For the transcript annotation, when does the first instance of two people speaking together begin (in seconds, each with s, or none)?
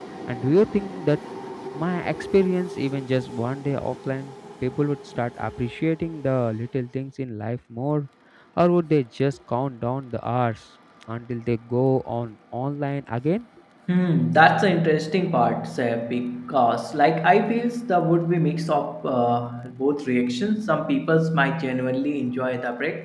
none